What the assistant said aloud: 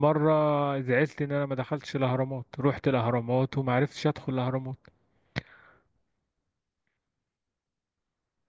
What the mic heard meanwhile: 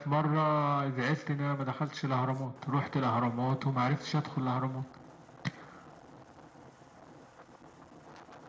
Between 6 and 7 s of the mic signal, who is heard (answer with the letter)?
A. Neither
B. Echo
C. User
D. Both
A